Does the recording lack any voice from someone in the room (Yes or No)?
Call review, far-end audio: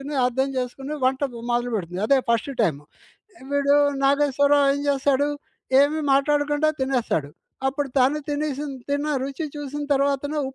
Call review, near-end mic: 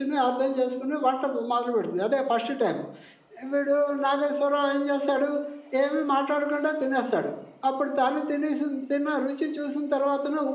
Yes